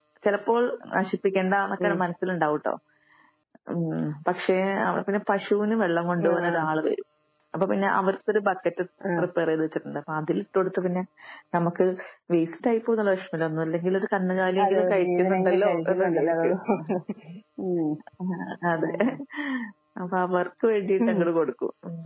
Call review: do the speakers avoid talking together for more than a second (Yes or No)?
No